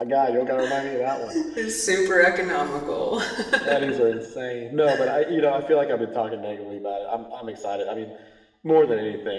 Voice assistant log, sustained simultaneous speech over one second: none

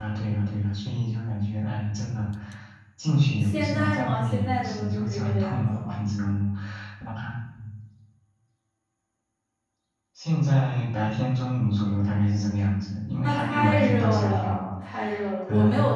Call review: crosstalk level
present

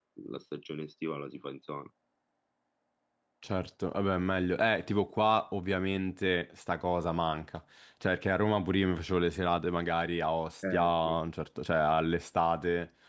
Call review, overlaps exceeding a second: none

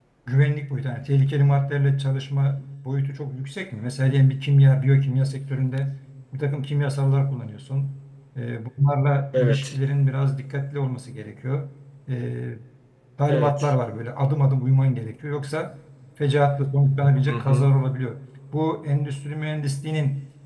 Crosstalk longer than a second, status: none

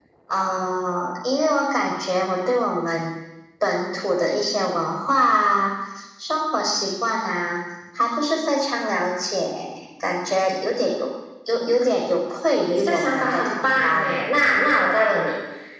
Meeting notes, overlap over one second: present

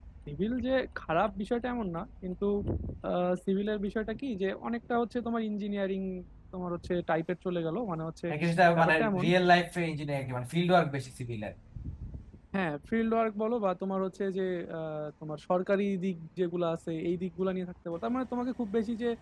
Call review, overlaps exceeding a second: none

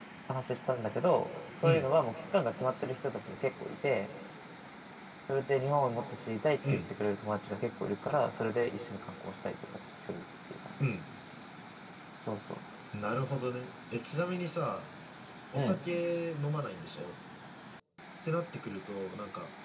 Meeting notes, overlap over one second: none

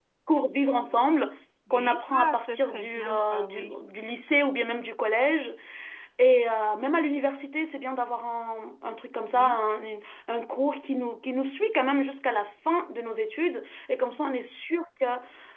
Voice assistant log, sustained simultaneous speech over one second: present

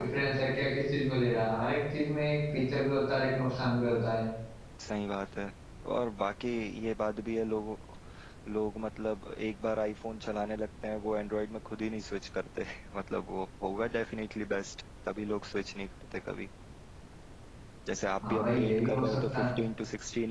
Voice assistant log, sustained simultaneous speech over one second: present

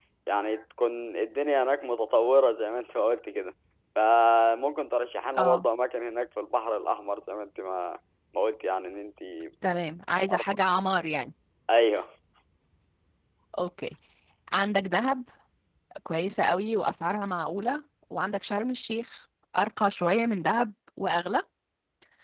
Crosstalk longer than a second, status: none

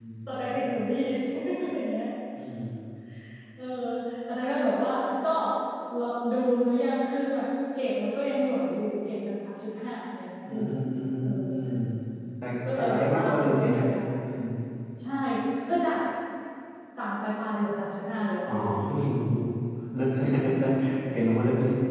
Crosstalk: present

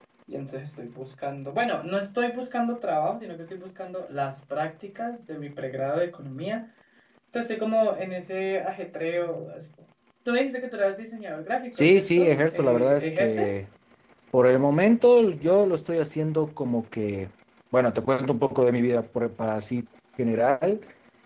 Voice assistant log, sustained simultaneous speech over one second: present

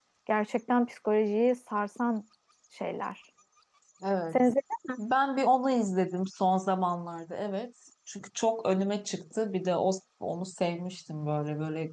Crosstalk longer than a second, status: none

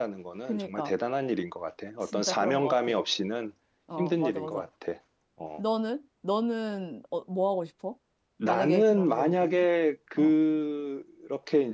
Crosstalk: present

